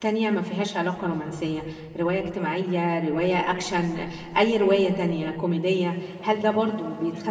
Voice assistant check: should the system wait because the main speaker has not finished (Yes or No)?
Yes